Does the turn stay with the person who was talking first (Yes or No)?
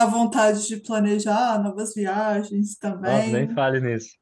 No